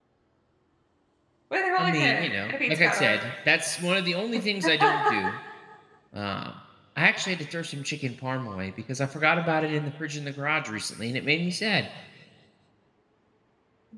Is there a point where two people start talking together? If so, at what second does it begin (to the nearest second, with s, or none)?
2 s